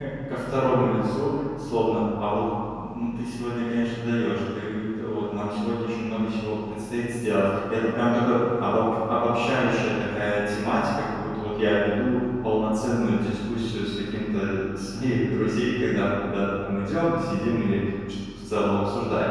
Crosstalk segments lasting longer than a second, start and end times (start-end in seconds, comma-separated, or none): none